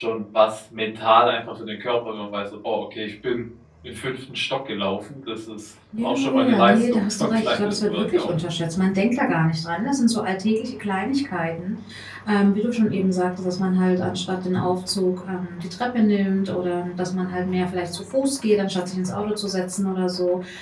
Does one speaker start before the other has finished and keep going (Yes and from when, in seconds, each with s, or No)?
Yes, from 5.9 s